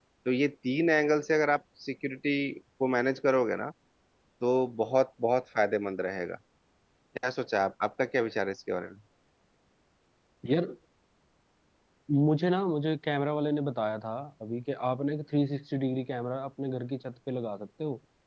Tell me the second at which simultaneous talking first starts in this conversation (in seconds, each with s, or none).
none